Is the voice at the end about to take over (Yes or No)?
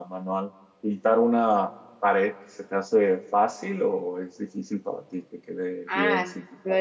Yes